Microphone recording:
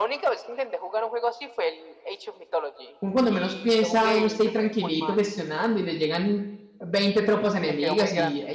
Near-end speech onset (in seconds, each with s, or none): 3.0 s